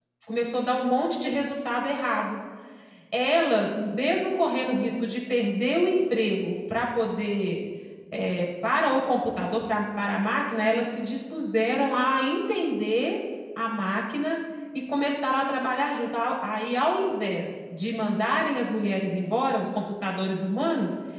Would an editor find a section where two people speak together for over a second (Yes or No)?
No